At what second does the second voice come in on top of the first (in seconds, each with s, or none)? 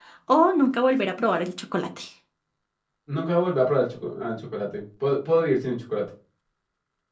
none